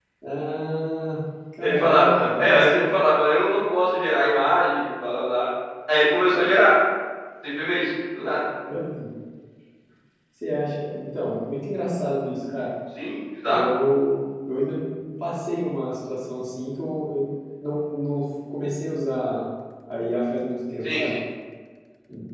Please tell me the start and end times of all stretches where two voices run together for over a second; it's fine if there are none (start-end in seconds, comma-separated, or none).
1.6-2.9